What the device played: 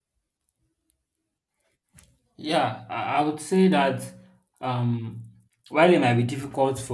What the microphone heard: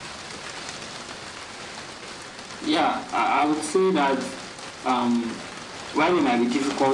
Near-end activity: none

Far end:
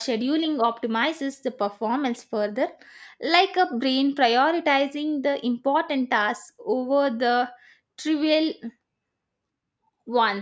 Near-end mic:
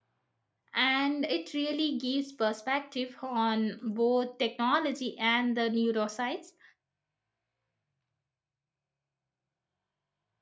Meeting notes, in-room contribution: present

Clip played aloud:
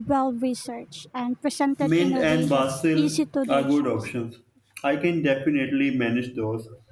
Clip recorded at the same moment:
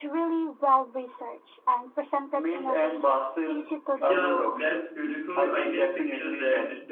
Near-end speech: present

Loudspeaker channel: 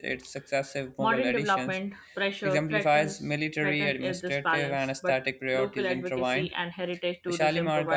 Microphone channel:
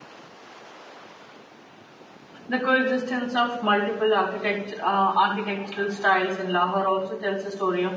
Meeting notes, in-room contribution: present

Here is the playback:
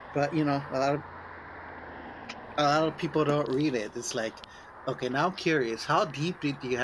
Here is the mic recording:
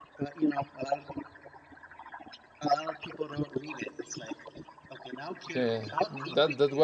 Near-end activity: present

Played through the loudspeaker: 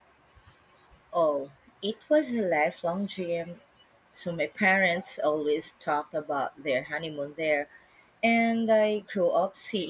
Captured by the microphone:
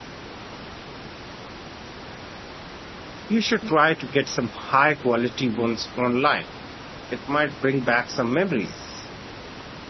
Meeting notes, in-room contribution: present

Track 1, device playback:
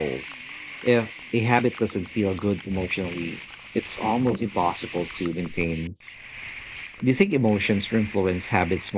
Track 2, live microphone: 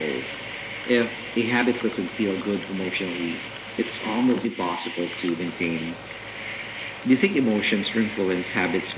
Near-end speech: none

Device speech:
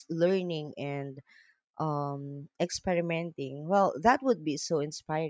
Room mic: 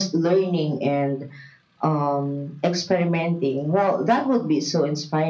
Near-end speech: none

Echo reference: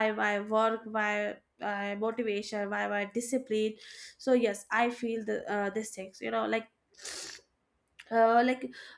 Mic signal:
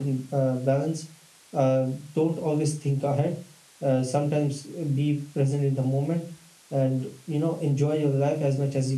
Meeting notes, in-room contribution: present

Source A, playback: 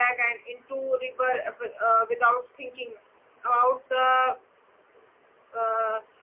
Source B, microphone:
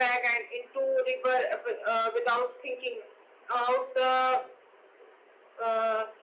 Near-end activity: none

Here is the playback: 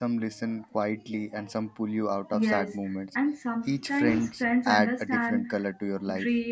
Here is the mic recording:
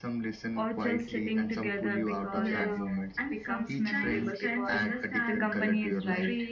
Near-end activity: present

